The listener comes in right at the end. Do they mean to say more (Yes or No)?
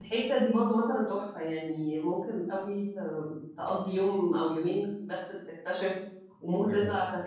No